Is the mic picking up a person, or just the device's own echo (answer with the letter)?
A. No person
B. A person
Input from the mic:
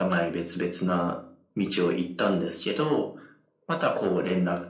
A